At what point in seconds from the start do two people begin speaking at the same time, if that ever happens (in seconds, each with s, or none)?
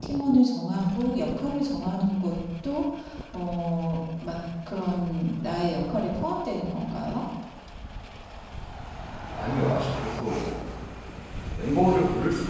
none